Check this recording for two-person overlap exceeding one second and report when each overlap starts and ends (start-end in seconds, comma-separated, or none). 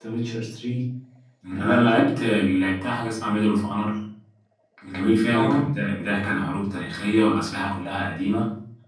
none